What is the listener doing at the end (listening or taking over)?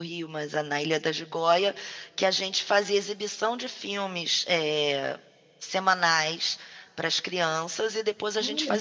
listening